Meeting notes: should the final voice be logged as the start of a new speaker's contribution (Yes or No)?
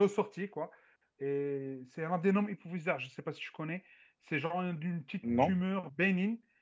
No